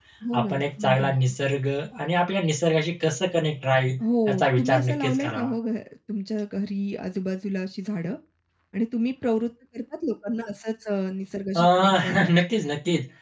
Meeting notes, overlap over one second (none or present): present